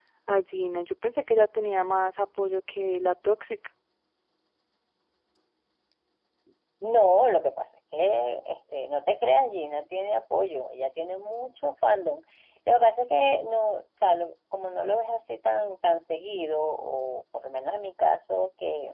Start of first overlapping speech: none

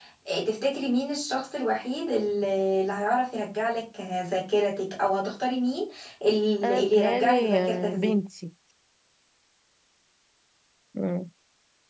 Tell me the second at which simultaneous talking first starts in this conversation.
6.6 s

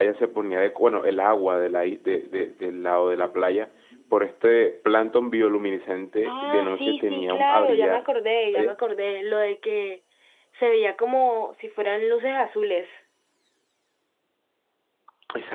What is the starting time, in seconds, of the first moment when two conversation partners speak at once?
6.2 s

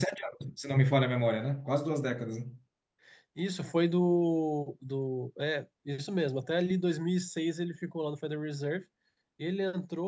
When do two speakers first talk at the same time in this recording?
none

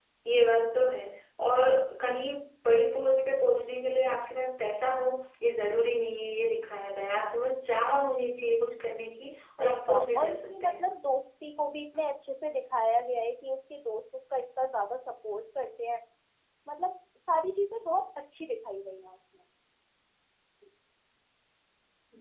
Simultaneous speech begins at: 9.6 s

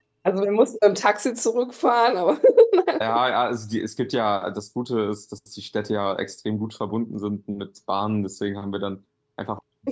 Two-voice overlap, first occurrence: none

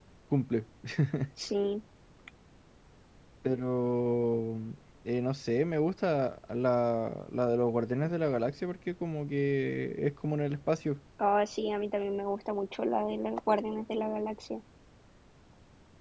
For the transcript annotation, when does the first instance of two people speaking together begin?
none

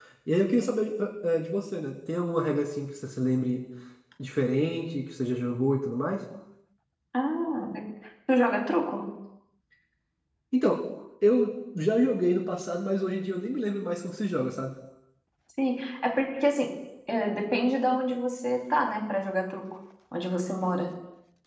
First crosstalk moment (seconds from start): none

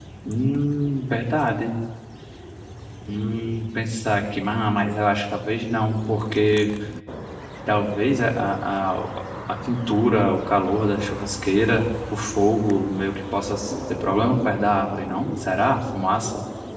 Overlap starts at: none

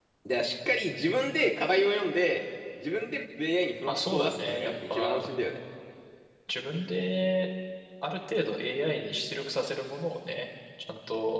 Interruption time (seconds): 3.9 s

